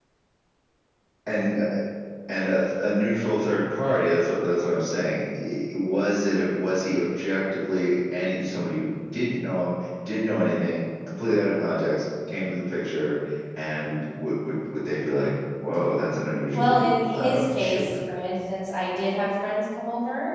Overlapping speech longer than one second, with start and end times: 16.5-17.9

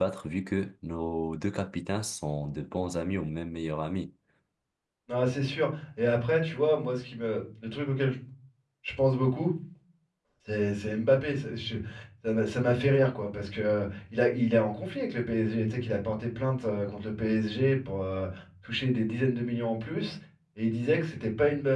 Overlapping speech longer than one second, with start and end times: none

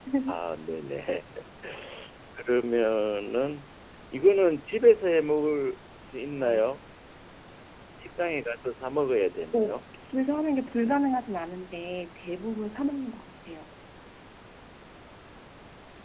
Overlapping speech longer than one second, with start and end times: none

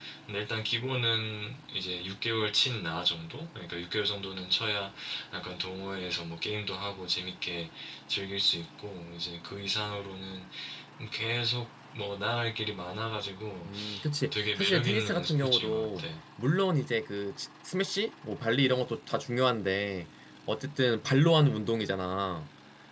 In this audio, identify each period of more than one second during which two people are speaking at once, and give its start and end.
14.3-16.1

